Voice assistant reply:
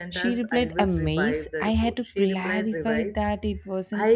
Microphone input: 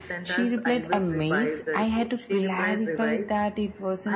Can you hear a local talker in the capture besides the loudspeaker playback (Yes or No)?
No